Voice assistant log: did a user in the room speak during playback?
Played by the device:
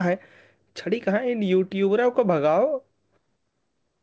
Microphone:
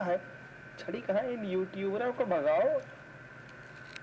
No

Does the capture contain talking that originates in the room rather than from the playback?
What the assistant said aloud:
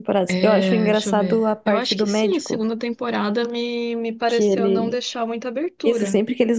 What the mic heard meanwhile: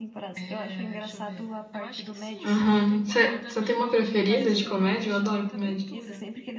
Yes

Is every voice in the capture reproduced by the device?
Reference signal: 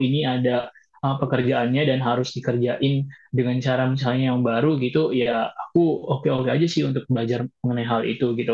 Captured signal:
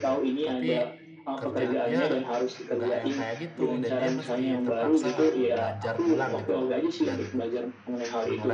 No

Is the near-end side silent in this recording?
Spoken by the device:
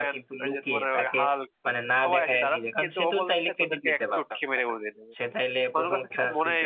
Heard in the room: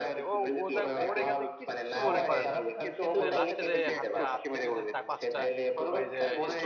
No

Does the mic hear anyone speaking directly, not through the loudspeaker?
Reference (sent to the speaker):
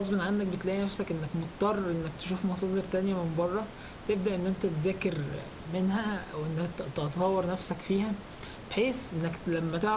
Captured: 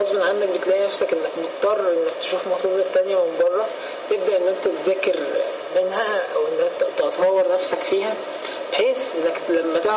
No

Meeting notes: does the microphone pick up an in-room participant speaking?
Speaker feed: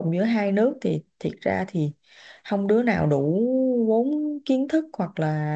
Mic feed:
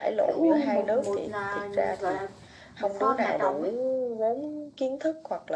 Yes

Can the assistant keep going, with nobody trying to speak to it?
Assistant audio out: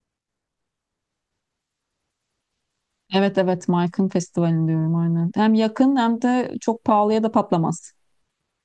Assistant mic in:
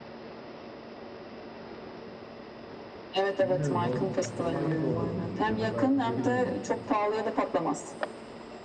No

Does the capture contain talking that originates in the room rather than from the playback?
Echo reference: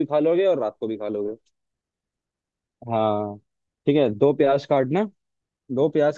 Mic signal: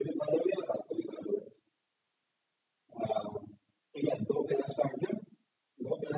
No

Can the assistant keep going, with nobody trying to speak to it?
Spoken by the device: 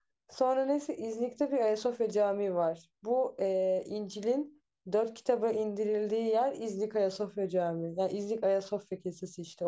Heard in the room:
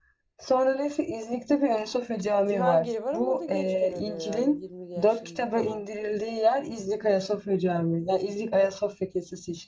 No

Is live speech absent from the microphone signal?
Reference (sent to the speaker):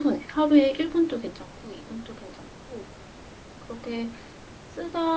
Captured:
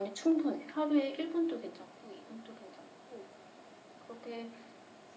Yes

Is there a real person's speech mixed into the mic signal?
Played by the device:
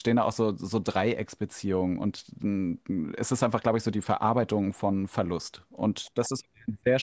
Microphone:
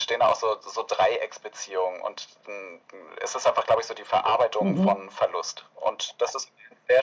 Yes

